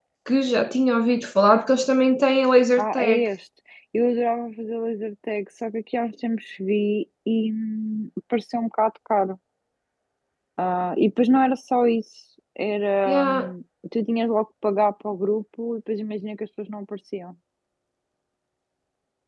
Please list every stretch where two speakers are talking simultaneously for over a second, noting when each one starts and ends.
none

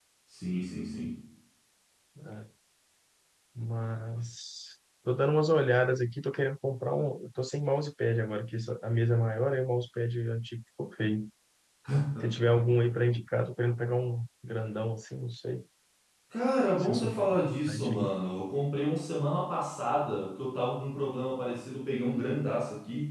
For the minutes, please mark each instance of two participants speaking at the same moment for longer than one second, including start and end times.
16.8-18.1

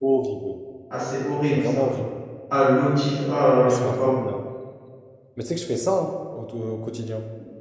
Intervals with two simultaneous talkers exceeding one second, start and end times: none

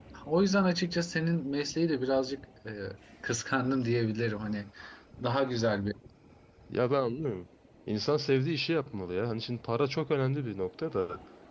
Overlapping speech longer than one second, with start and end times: none

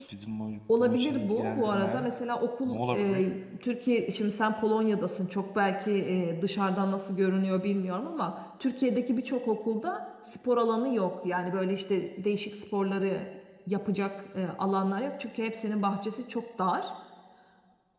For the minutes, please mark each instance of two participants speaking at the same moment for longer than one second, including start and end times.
0.8-2.0

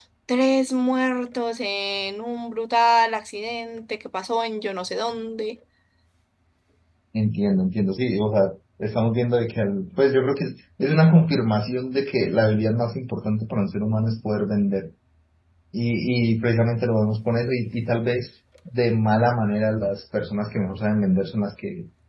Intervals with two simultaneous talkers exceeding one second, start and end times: none

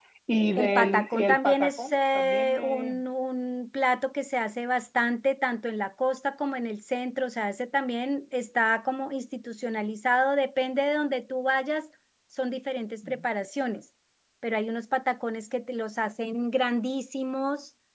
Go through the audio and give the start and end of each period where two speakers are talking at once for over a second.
0.6-3.0

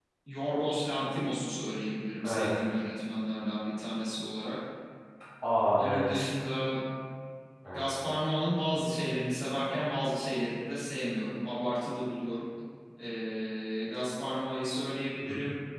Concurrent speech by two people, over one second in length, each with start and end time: none

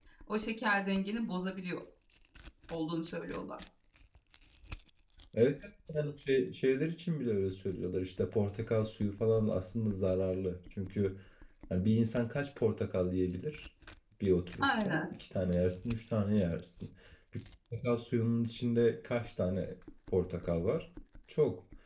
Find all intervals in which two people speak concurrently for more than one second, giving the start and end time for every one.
none

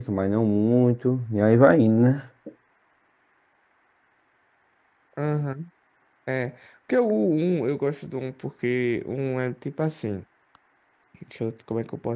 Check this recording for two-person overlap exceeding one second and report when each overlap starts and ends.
none

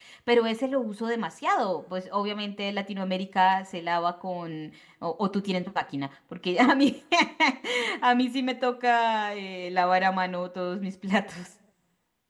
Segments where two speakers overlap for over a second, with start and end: none

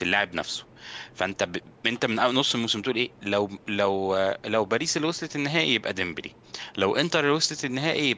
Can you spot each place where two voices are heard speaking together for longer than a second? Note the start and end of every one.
none

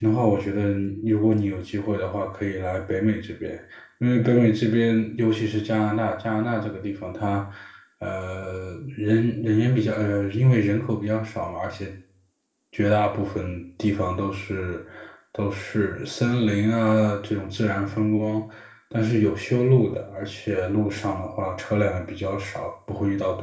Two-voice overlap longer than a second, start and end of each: none

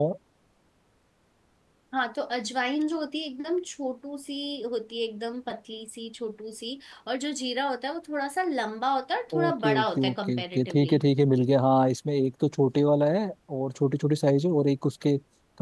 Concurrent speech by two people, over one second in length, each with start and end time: 9.3-10.9

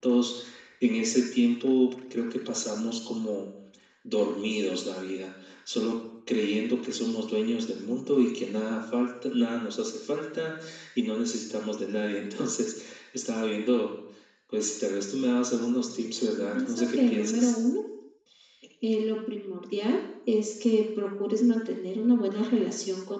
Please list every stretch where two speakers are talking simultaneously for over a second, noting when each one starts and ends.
15.8-17.5

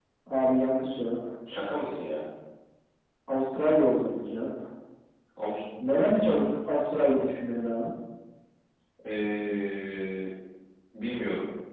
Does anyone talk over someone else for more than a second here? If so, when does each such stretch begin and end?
none

